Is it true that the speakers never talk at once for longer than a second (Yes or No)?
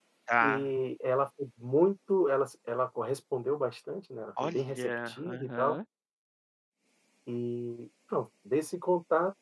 No